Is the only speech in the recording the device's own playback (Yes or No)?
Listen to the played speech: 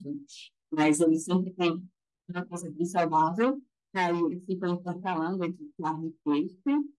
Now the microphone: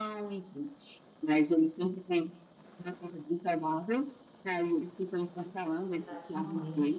No